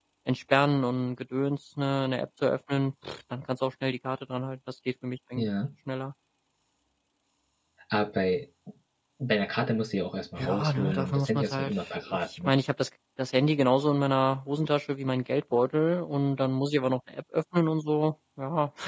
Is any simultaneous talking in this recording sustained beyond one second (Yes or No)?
Yes